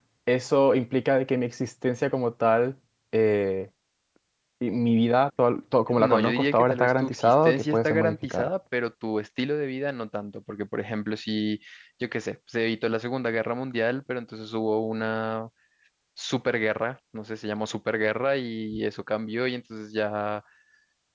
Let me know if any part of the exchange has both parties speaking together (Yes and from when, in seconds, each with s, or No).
Yes, from 5.9 s